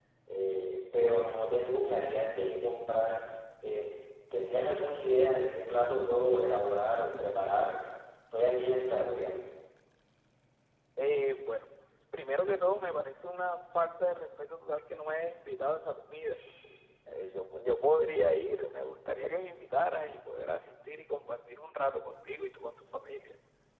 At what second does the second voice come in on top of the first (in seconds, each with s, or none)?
none